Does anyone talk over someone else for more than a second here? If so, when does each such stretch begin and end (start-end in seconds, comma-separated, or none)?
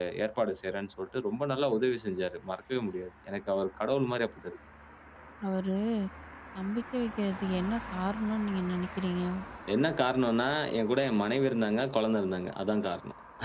none